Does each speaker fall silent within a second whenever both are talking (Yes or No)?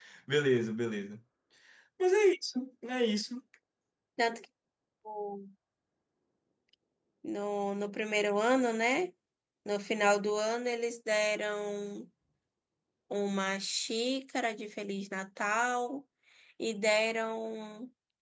Yes